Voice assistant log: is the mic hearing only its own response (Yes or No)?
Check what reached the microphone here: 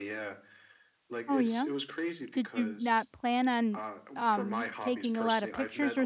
No